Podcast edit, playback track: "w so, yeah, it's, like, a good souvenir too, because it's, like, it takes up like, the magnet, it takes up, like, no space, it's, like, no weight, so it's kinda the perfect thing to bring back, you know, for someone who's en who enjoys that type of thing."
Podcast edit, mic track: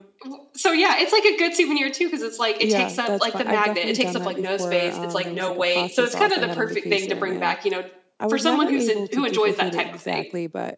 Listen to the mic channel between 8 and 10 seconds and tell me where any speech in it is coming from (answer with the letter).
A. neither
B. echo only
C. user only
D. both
D